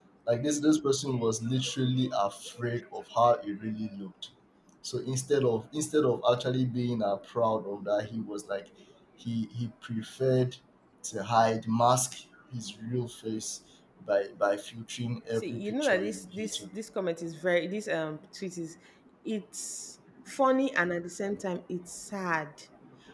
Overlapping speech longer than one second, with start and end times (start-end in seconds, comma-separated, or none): 15.4-16.6